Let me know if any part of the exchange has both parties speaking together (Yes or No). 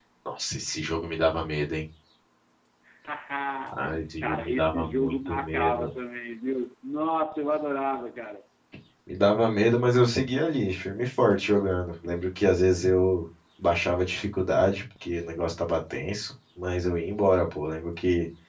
Yes